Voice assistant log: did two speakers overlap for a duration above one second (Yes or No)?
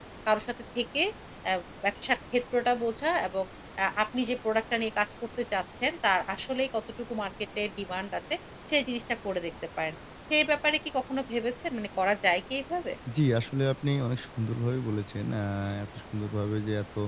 No